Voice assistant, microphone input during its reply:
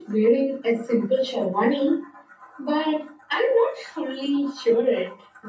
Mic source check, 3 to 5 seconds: echo only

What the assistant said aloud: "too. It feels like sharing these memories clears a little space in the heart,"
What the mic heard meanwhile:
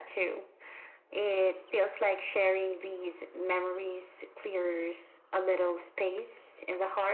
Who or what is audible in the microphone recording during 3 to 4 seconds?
echo only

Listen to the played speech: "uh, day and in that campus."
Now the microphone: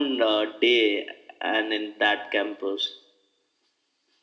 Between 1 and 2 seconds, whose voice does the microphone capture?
echo only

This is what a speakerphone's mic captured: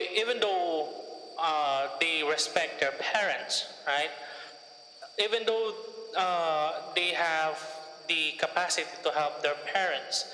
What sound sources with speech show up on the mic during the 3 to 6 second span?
echo only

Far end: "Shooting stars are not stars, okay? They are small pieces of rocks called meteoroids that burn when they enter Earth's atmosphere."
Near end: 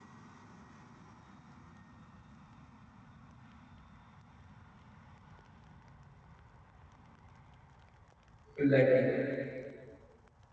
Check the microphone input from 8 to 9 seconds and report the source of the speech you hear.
user only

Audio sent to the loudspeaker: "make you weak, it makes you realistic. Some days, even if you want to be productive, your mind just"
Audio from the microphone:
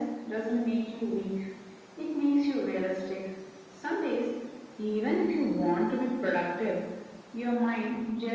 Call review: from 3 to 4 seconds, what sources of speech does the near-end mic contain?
echo only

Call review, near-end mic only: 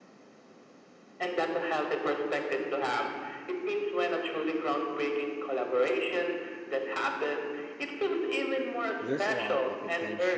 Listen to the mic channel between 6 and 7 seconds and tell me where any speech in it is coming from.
echo only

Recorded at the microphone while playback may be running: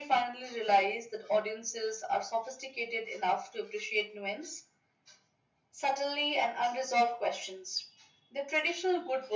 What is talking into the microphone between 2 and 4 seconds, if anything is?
echo only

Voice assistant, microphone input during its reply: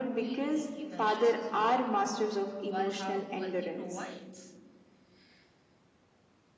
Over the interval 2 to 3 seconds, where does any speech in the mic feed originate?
both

